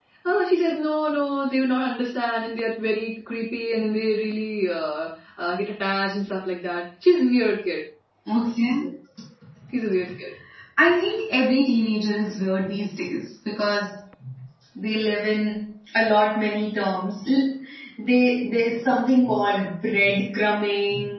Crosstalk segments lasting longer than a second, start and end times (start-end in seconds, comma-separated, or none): none